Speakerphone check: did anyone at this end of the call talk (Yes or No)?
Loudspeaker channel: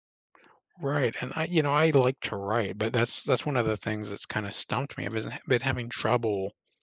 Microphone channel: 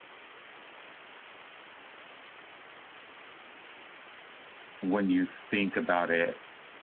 Yes